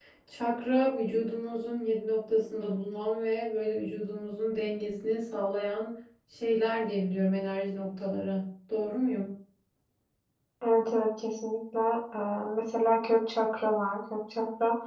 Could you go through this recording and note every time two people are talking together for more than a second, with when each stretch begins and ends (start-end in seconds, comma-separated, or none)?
none